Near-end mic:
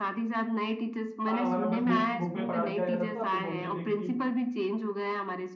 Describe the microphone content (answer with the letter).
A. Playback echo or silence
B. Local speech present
B